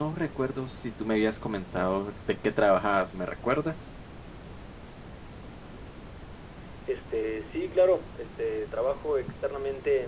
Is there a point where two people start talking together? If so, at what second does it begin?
none

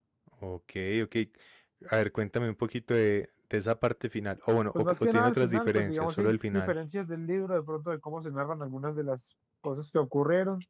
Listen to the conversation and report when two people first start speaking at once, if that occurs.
4.8 s

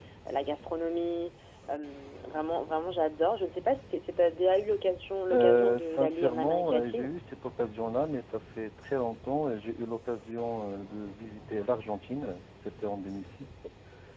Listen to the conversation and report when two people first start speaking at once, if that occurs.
5.3 s

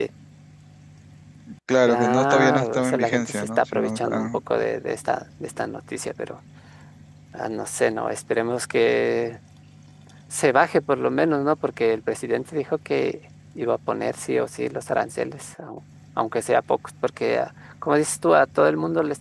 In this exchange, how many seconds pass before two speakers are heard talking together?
1.9 s

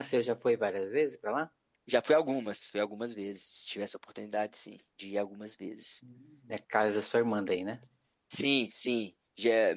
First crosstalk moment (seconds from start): none

